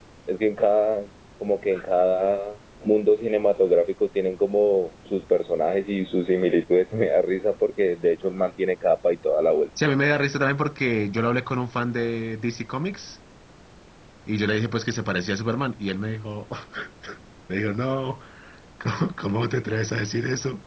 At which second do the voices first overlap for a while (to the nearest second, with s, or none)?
none